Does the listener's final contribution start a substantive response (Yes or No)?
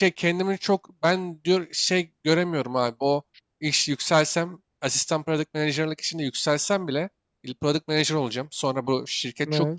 No